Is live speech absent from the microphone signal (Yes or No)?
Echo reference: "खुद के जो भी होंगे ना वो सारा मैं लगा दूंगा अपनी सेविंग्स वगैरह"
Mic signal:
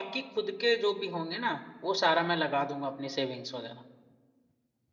Yes